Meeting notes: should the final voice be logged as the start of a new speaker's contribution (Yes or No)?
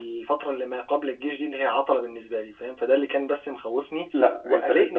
Yes